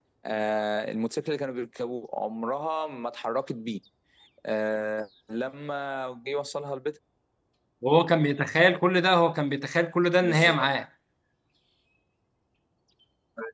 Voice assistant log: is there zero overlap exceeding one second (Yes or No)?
Yes